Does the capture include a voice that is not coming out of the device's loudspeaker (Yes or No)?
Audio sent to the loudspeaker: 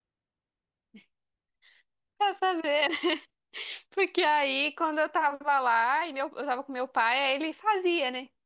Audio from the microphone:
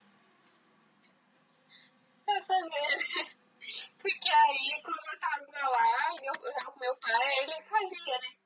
No